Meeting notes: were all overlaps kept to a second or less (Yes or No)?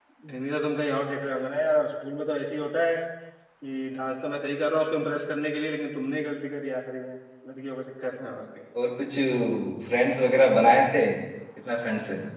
Yes